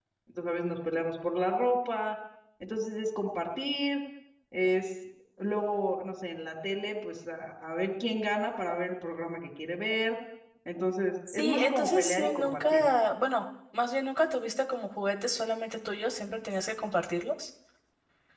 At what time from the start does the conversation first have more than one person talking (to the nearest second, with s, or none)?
11 s